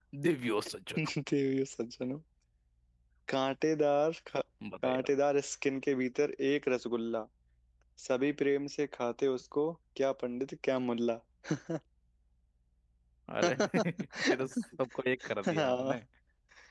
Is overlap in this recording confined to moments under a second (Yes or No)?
Yes